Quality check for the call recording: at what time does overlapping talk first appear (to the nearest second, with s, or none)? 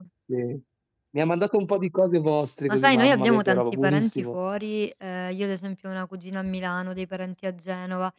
3 s